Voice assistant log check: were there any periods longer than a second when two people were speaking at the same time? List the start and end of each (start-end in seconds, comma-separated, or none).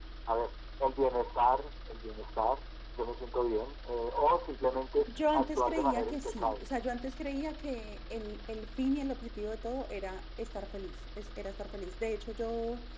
5.1-6.6